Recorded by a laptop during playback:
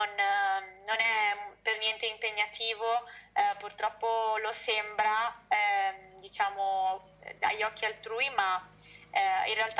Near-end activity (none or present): none